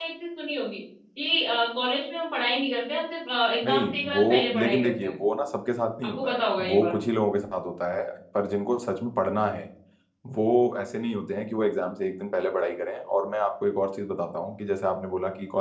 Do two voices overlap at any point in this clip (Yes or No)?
Yes